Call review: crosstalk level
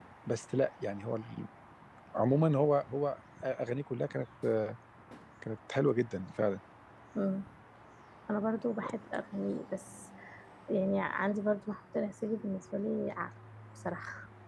none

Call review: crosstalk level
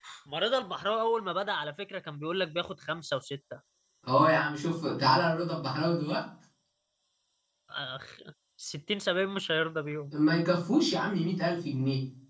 none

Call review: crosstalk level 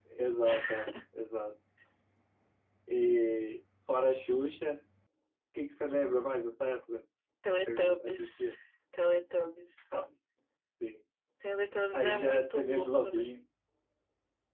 present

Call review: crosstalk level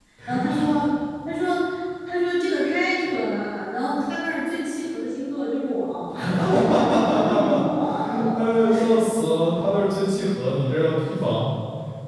present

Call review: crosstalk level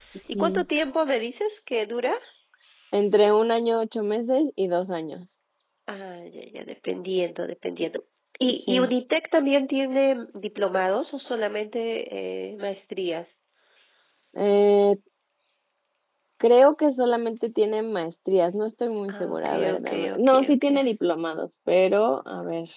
present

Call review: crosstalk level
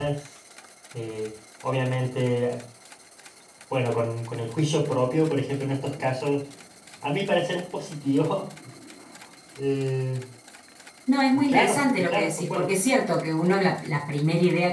present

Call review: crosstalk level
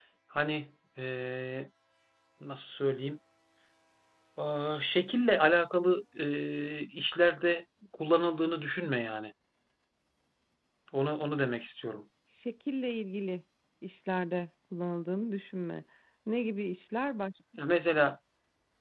none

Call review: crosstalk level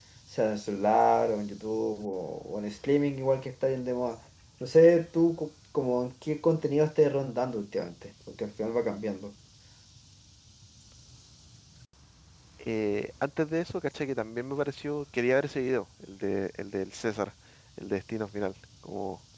none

